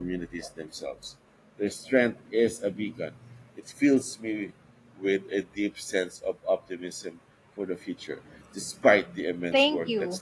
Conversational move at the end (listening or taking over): taking over